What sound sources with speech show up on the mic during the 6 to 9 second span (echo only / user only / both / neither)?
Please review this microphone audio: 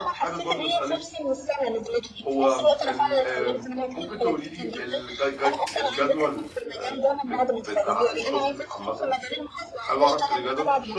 both